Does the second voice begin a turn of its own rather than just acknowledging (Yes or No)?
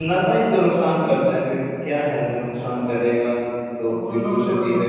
Yes